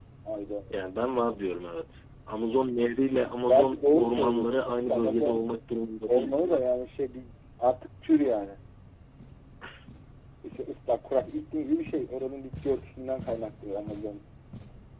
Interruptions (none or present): present